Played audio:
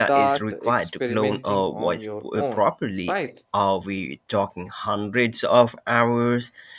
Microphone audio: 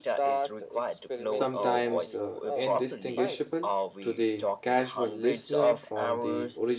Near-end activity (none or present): present